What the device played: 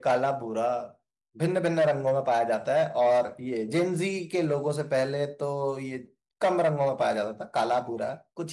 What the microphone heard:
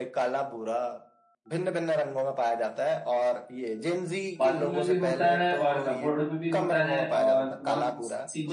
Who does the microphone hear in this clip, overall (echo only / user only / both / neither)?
both